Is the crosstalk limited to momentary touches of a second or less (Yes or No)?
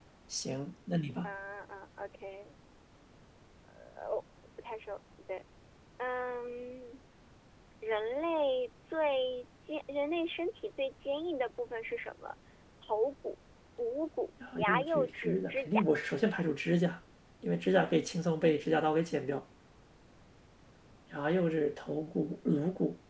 No